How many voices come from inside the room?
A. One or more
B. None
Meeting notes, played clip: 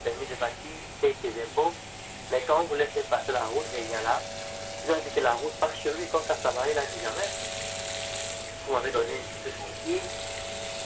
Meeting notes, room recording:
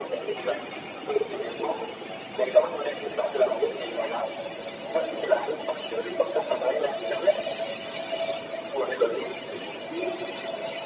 B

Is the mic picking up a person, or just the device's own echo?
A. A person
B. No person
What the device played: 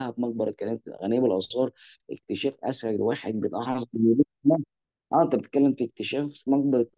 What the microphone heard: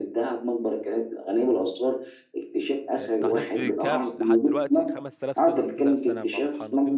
A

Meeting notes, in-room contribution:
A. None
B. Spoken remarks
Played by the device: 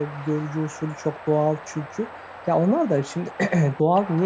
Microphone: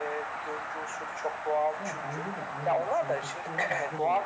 B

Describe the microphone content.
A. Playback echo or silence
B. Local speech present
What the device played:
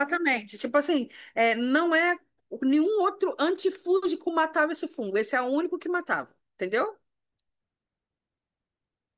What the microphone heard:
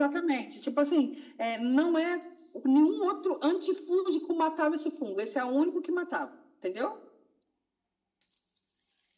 A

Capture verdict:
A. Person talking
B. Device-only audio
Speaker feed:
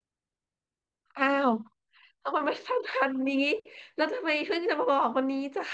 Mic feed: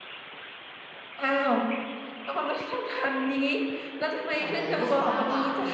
A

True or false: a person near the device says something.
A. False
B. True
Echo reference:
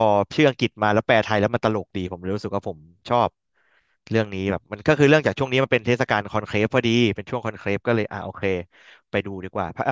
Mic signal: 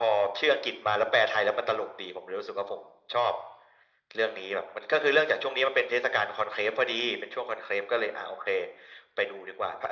A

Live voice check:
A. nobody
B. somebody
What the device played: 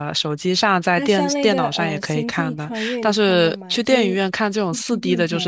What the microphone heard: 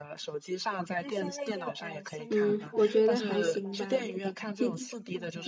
B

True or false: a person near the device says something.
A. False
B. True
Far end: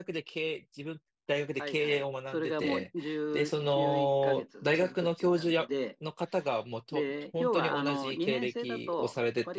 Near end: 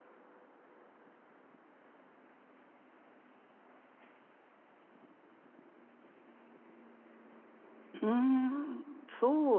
B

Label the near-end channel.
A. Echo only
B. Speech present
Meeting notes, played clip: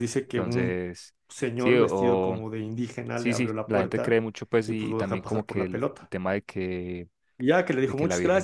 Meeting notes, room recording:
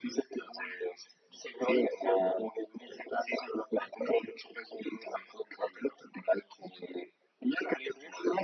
A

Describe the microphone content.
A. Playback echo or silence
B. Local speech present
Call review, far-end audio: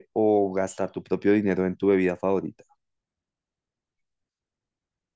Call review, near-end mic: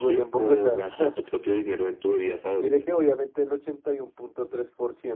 B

